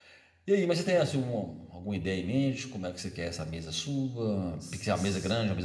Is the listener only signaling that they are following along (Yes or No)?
Yes